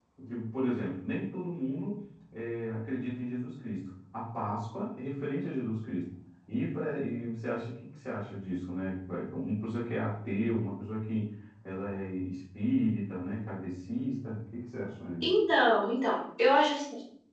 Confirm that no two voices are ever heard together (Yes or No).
Yes